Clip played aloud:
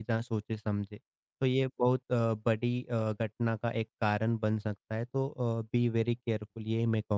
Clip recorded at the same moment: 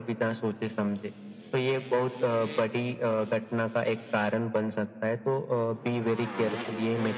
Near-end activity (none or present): none